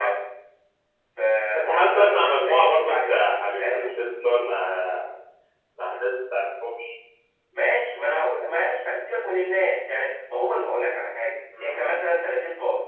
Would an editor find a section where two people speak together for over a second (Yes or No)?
Yes